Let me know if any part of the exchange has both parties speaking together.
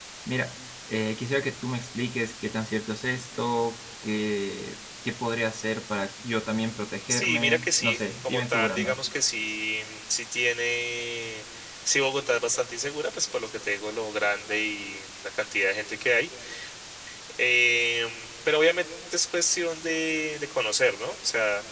Yes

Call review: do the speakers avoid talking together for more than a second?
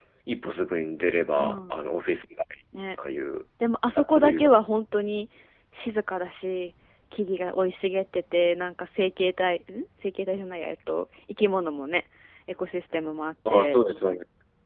Yes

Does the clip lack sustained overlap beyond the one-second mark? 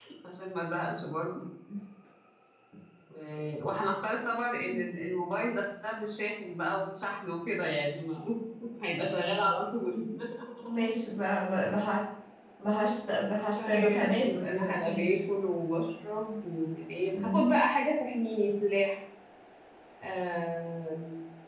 No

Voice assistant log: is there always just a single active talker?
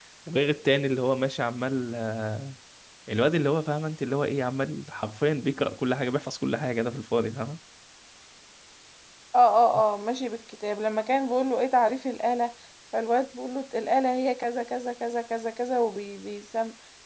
Yes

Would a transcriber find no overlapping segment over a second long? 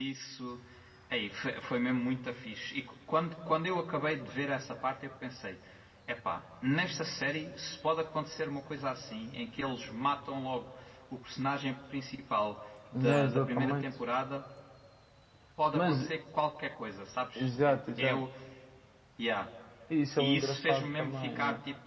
No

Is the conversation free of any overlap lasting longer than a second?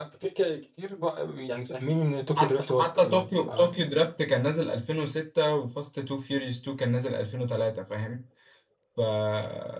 No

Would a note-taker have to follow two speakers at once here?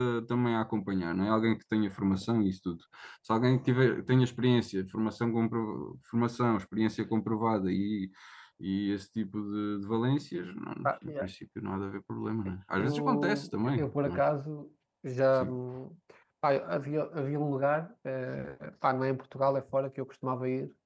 Yes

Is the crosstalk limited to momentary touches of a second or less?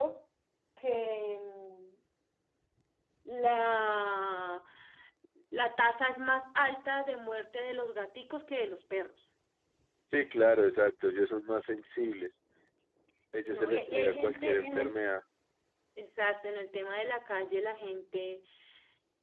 No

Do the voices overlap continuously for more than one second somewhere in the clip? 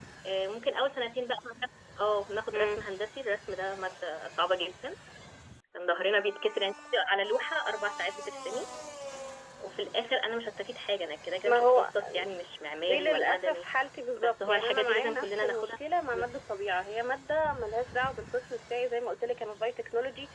Yes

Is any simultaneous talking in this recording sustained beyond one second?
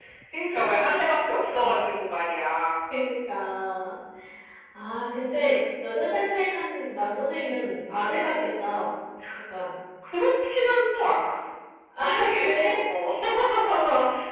No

